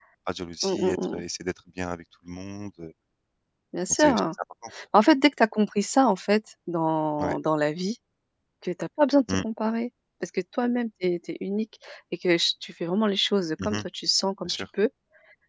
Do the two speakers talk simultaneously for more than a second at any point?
No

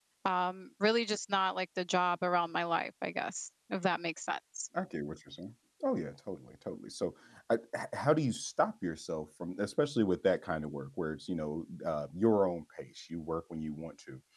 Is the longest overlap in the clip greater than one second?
No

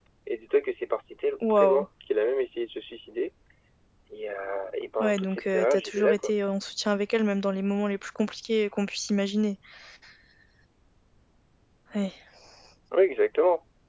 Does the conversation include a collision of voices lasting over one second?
Yes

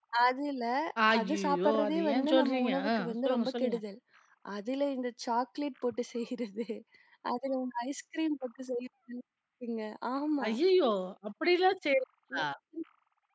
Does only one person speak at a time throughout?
No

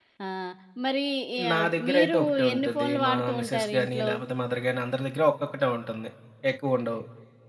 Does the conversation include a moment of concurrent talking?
Yes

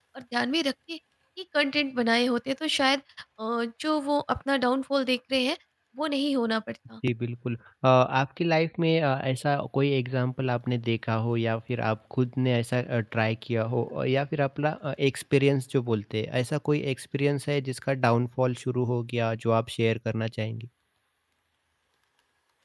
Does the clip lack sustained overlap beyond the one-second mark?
Yes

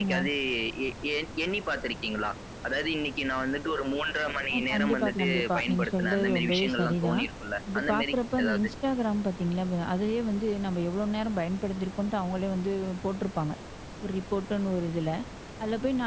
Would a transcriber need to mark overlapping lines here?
Yes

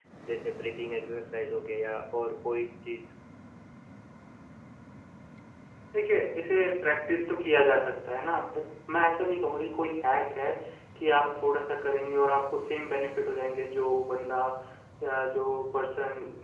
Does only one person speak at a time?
Yes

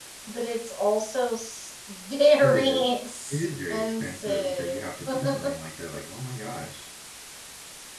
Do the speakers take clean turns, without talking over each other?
No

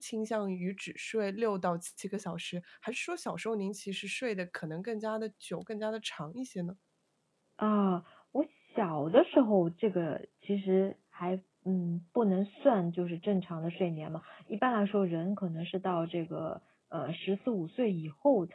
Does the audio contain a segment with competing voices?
No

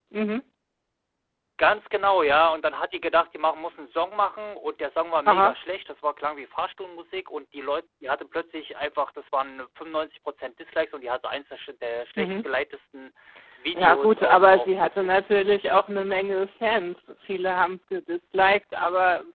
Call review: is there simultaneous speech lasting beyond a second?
Yes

